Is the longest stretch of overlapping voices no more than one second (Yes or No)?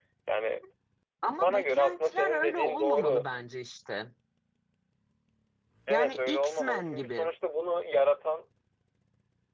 No